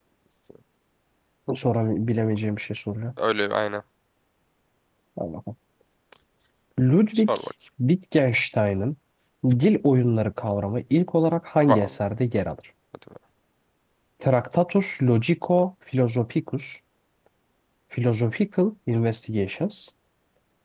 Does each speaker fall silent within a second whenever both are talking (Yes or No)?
Yes